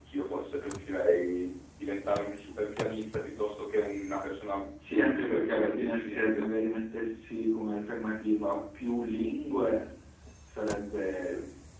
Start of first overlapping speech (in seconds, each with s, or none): 5.1 s